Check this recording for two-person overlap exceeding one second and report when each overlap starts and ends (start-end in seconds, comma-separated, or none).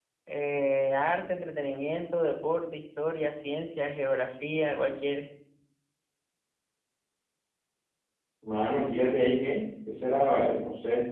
none